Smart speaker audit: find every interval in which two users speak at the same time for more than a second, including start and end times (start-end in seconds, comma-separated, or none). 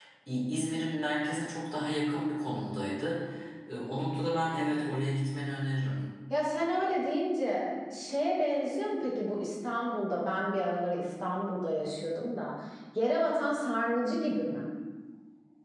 none